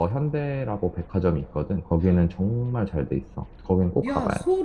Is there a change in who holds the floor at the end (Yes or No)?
Yes